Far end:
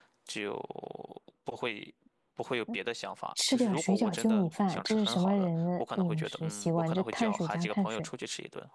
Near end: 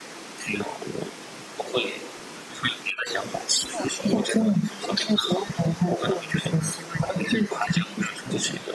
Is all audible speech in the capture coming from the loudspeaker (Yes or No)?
Yes